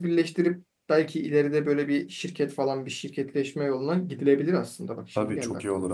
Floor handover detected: Yes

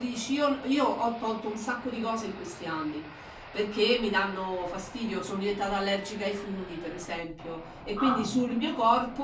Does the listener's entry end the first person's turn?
No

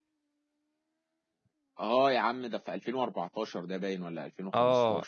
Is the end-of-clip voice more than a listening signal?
Yes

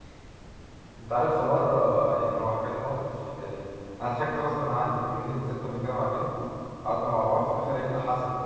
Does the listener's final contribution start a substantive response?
No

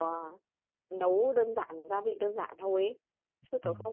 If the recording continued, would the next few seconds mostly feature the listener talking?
No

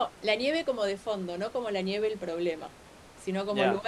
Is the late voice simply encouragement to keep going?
Yes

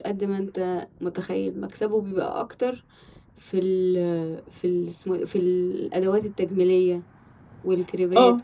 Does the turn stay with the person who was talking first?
No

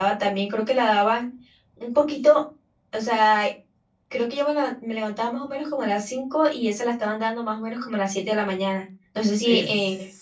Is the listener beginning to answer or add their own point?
Yes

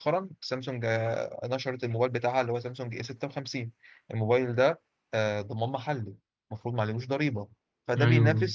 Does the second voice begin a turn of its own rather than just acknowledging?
No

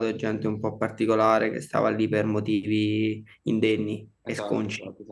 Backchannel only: No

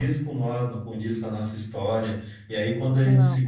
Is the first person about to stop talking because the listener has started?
No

